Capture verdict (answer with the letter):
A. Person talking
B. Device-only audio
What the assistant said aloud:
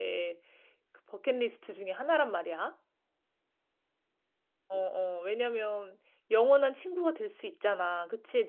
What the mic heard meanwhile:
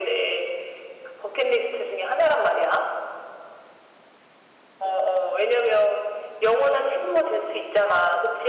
B